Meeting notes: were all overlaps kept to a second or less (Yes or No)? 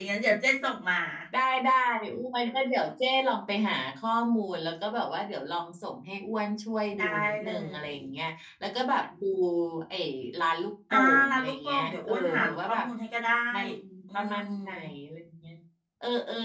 No